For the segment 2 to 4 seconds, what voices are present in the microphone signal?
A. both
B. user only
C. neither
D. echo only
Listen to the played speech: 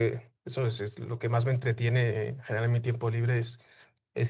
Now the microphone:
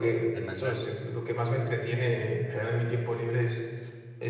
D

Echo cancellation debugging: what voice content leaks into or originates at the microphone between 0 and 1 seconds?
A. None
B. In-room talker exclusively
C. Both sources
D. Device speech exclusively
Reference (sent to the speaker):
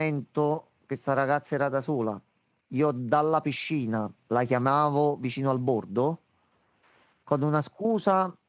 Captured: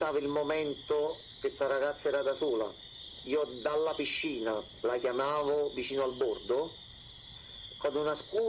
D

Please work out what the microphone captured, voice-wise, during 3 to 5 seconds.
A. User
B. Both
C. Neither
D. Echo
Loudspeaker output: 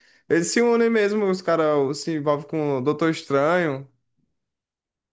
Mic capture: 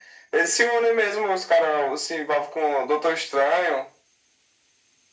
D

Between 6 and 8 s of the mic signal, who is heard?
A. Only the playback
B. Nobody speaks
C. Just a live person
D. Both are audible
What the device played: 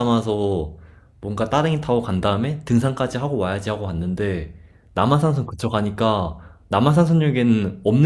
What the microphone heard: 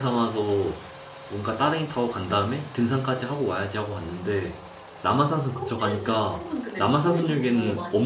D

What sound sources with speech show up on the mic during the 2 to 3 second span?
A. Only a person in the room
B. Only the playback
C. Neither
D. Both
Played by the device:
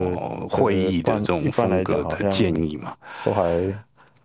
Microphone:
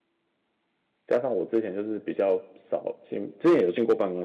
A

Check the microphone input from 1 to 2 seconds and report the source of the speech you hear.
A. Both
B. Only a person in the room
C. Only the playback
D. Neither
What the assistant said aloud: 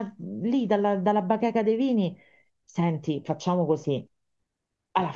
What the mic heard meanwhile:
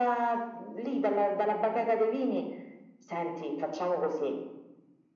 C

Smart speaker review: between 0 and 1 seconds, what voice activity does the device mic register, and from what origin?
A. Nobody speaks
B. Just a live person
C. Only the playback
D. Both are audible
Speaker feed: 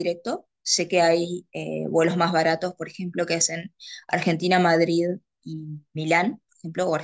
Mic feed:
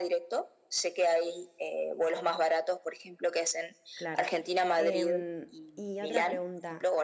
C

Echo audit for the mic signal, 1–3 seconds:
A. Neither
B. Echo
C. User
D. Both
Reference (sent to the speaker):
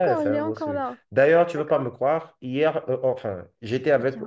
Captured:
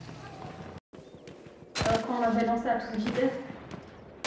C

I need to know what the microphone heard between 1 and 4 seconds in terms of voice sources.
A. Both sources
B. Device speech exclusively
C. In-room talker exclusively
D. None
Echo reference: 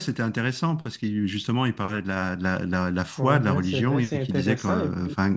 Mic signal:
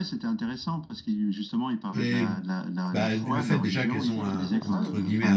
A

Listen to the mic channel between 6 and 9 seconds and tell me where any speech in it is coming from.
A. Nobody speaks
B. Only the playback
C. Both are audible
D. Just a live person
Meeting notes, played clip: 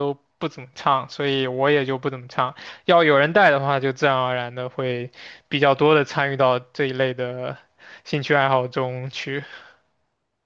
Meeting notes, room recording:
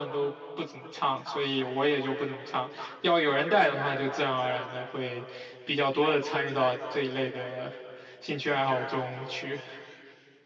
B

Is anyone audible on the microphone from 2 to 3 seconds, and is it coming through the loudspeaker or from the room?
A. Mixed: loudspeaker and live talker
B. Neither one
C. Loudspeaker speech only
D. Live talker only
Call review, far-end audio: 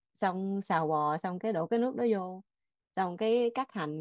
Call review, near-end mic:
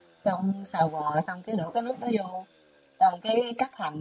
C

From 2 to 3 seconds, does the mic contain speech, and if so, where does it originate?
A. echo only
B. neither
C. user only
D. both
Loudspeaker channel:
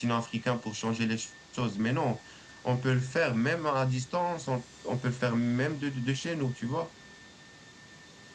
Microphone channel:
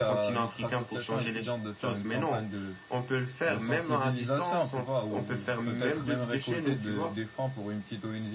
D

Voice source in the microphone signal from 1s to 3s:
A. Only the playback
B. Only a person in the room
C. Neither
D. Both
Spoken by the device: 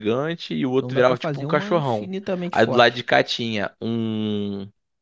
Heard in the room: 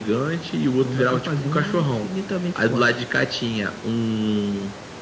A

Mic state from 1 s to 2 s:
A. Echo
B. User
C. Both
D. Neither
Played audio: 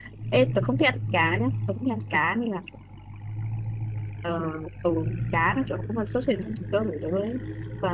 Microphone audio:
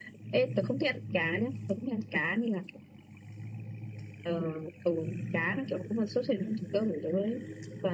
A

